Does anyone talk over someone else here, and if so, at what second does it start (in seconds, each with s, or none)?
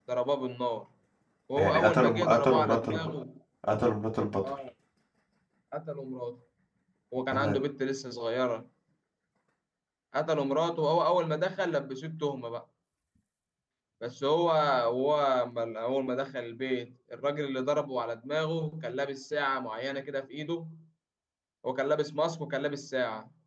1.6 s